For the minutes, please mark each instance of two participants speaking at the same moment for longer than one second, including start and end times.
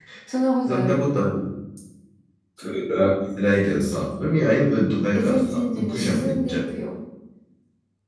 5.1-6.6

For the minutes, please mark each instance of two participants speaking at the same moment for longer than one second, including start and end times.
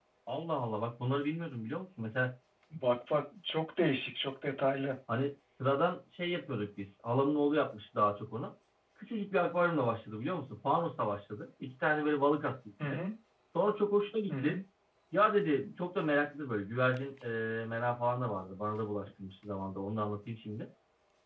none

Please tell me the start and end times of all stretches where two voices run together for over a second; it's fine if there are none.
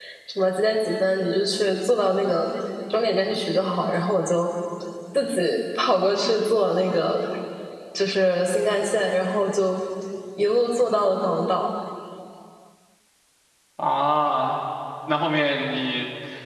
none

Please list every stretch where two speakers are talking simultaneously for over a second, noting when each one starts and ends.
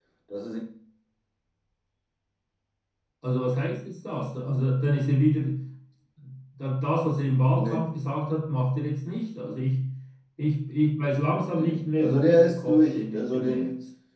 11.4-13.7

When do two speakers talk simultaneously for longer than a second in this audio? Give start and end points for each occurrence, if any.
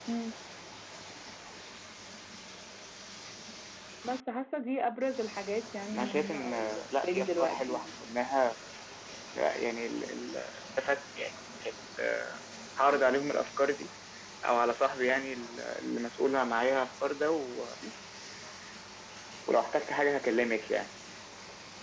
5.9-7.8

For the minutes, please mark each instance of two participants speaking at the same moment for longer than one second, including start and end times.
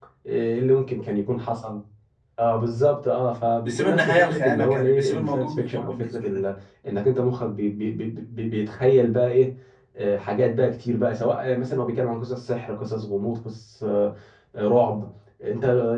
3.6-6.2

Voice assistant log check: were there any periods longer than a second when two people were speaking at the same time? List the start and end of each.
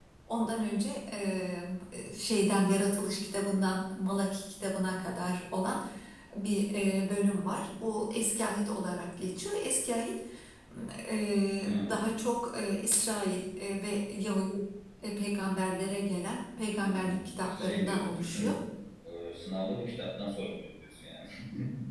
16.8-18.5

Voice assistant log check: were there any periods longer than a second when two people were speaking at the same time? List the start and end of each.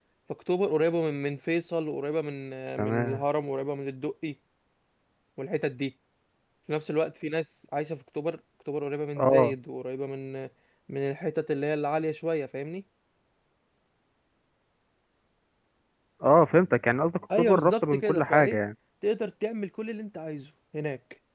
17.4-18.6

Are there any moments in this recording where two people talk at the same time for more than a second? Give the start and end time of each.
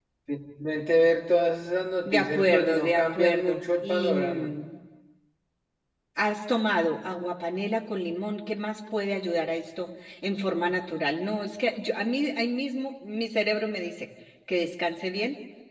2.0-4.5

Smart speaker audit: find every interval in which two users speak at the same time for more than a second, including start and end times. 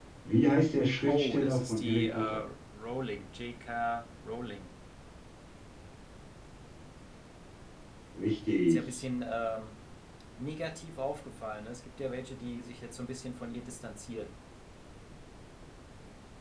1.1-2.4

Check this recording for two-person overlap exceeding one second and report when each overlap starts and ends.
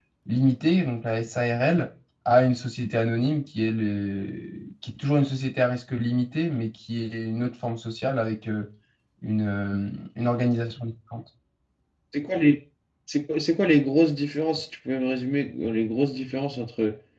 none

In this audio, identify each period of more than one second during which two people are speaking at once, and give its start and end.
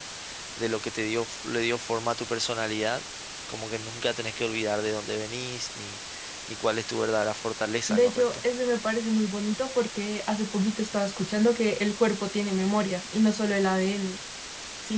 none

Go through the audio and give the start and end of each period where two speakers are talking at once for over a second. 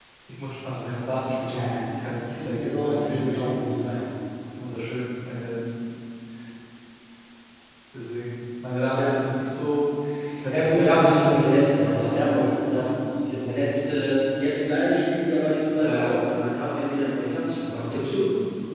1.5-4.0, 10.5-12.9

